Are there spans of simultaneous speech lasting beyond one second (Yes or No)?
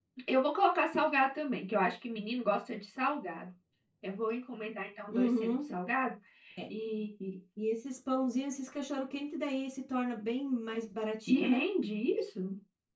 No